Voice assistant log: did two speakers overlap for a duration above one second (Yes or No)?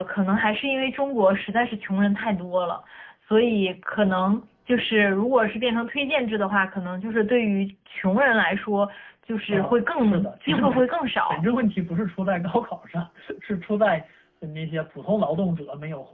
Yes